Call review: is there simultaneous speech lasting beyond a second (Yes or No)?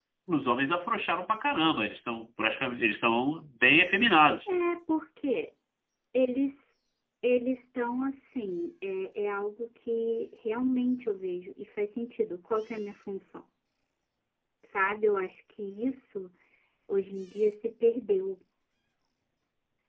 No